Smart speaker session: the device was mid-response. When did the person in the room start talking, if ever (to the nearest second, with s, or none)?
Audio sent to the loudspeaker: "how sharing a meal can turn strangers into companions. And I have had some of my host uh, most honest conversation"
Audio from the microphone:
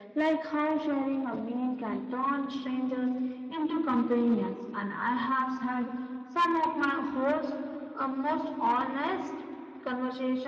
none